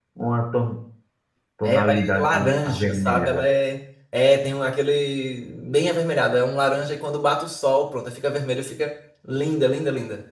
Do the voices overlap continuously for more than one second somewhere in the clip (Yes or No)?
Yes